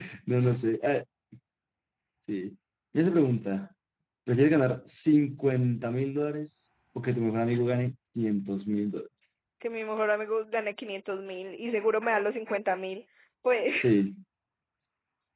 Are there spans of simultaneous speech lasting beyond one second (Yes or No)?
No